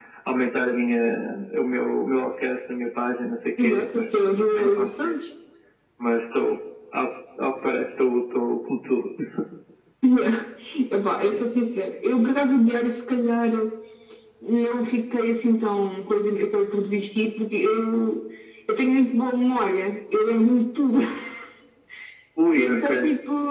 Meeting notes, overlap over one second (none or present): present